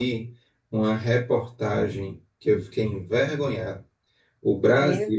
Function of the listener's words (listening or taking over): listening